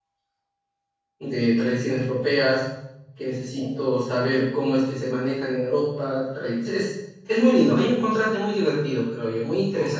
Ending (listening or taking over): taking over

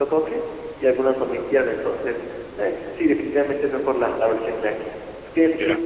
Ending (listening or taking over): listening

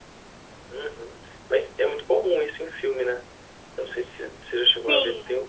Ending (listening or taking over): listening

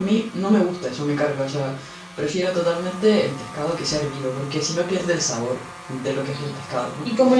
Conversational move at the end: taking over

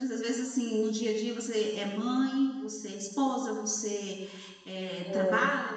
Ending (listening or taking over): listening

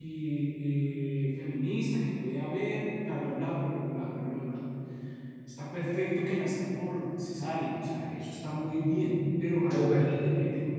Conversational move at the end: listening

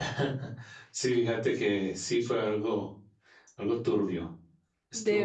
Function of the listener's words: listening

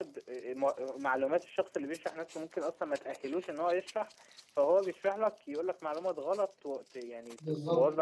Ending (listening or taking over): taking over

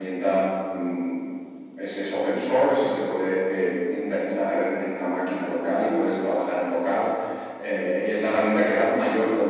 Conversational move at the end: listening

